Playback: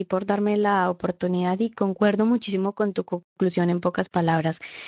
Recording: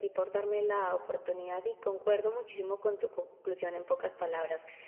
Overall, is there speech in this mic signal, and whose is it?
echo only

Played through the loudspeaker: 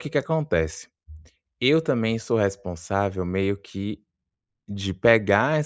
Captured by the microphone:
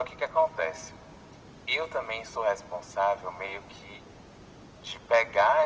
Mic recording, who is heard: echo only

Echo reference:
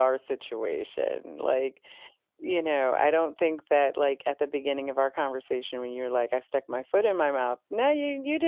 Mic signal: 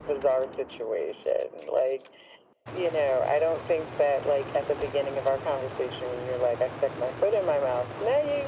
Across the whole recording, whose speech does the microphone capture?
echo only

